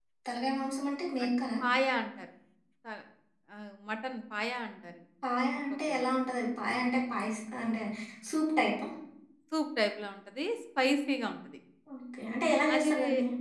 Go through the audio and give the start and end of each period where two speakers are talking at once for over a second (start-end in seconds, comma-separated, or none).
none